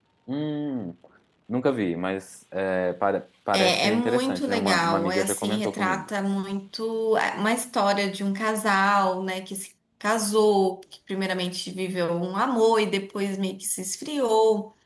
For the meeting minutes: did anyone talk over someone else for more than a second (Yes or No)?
Yes